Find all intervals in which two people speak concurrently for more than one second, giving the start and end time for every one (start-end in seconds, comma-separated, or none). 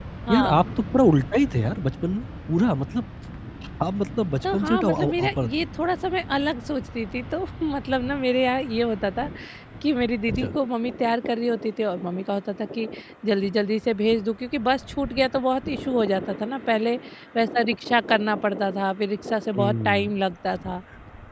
4.4-5.7